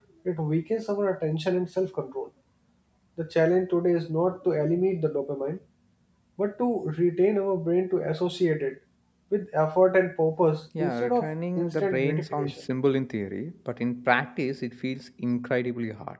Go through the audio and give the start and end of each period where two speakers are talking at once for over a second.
10.8-12.6

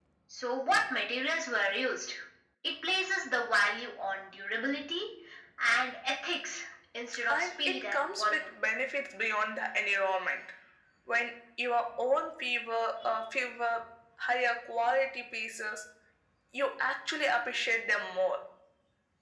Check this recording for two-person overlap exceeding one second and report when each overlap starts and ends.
7.3-8.6

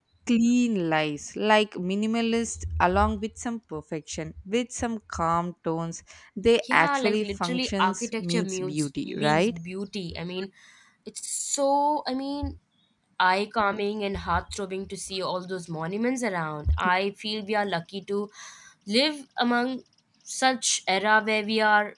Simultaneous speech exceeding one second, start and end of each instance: 6.7-9.6

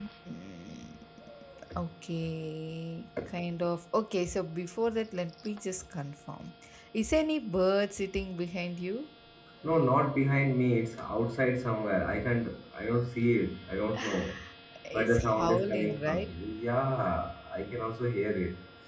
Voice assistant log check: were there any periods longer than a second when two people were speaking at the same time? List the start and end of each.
14.9-16.2

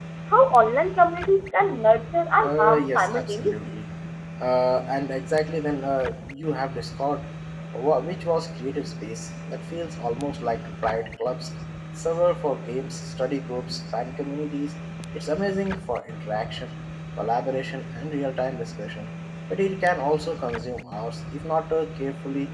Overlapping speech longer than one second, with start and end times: 2.4-3.7

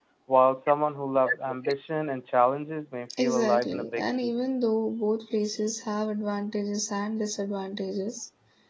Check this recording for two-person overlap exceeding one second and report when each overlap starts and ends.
3.2-4.5

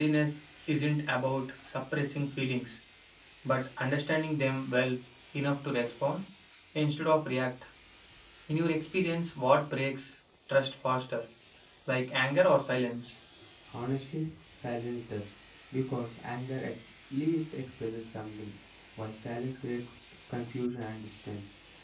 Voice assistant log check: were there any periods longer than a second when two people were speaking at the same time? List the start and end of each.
none

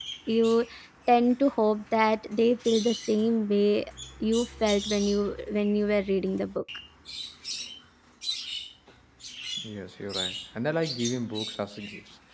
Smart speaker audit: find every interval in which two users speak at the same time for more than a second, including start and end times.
none

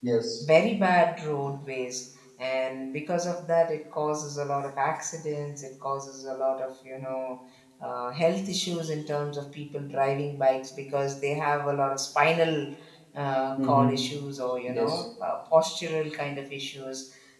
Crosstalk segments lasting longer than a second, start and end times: none

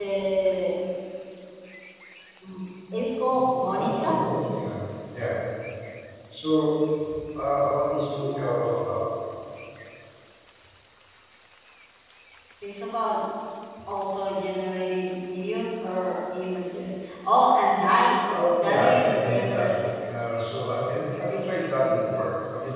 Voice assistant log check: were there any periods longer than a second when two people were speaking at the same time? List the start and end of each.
18.3-19.8

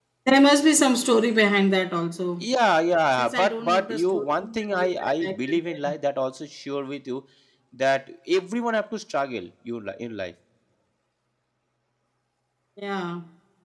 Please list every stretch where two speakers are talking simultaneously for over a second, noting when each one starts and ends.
3.1-5.9

